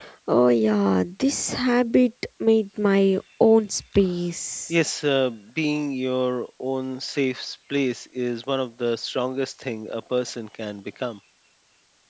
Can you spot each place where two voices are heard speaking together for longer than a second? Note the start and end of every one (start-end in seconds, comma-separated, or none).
none